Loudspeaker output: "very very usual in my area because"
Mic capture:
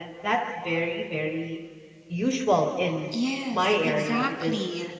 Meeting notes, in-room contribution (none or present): present